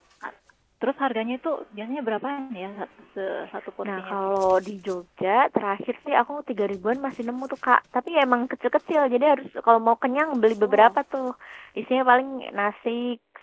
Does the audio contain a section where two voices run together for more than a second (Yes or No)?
No